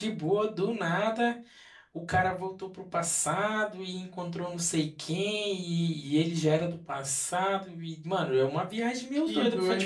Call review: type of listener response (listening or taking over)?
listening